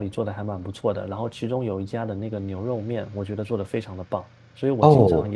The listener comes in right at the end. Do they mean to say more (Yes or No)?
No